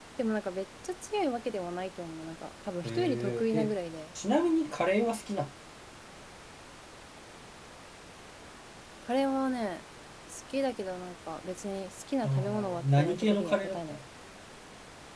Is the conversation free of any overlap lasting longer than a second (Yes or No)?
No